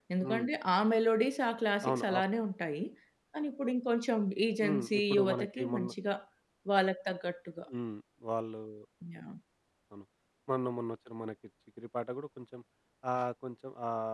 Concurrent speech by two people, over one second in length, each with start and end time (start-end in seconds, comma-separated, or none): 4.6-5.9